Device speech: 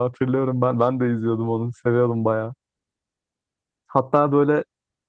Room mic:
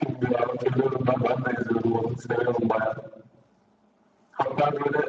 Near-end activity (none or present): none